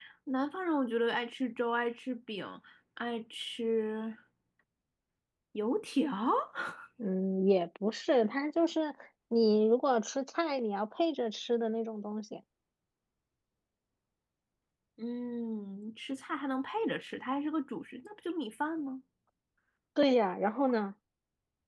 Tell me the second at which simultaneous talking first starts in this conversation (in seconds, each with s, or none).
none